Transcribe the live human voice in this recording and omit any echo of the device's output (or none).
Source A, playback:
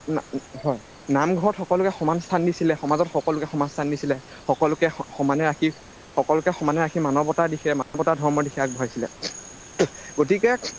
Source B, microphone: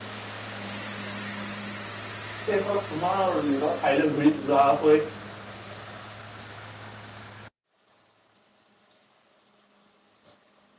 সেইসকল পুনৰ নিজৰ ঠাইলৈ ঘূৰি যোৱাকৈ